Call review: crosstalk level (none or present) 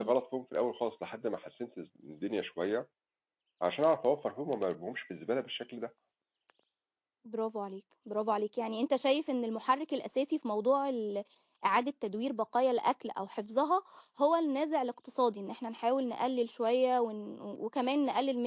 none